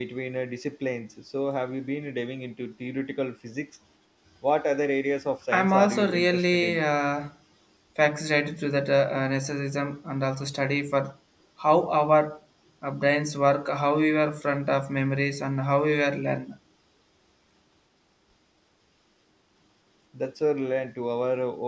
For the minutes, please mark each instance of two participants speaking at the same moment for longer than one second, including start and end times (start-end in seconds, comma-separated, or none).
5.5-6.8